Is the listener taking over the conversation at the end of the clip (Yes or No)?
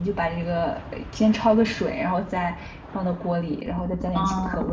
No